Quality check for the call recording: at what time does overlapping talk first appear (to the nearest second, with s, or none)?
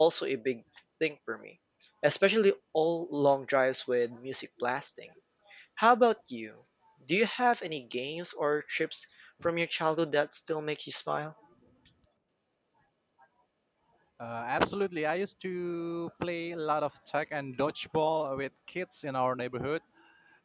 none